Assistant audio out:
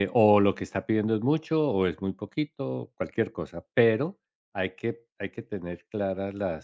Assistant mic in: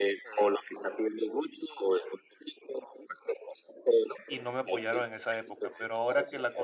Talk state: both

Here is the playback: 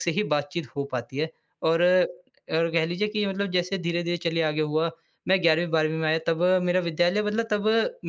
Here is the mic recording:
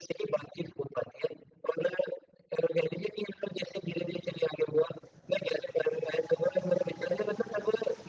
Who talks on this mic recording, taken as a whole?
echo only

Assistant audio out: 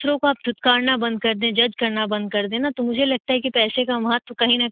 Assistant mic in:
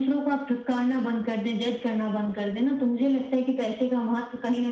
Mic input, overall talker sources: echo only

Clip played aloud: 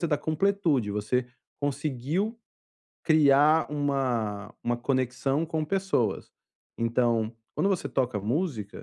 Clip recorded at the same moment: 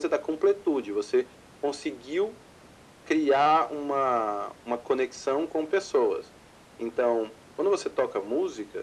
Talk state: echo only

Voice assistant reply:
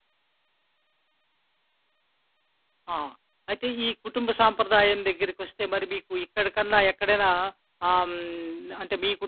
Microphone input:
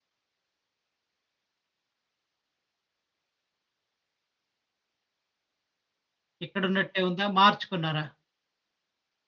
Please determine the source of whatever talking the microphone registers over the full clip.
user only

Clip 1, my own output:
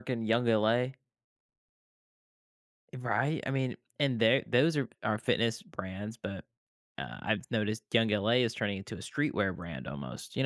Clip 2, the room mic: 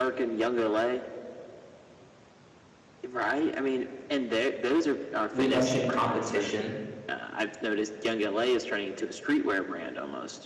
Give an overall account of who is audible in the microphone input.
both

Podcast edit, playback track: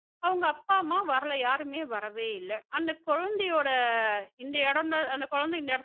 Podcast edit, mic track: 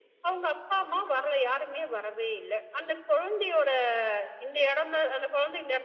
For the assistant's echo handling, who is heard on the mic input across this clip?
echo only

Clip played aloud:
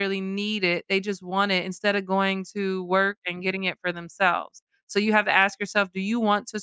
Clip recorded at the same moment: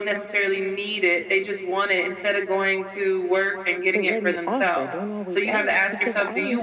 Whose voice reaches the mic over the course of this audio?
both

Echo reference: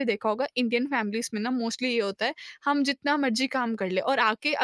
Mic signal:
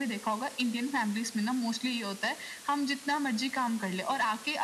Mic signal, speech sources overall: echo only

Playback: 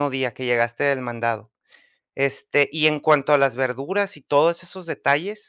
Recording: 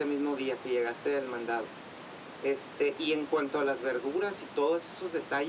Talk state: echo only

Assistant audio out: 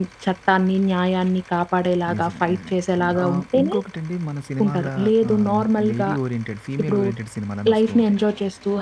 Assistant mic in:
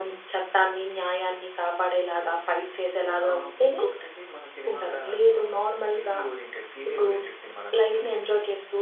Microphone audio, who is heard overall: echo only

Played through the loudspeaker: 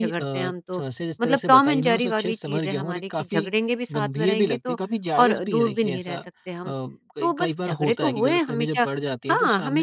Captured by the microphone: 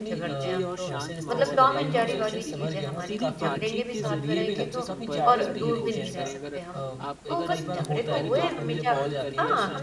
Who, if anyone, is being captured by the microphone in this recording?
both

